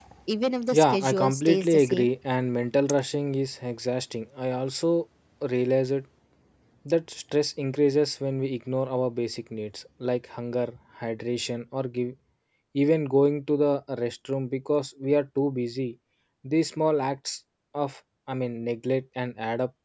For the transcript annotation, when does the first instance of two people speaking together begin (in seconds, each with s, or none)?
0.7 s